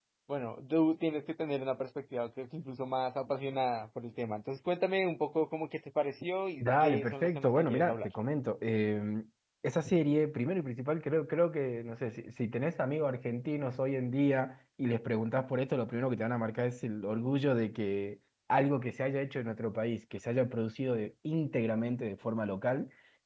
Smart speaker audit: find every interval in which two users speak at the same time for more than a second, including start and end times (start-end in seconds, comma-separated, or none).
6.6-8.1